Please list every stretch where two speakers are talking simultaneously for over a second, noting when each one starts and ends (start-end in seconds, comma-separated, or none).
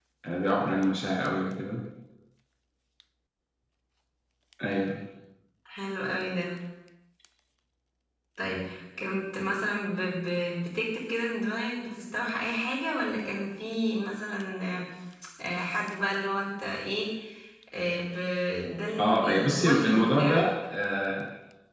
19.0-20.4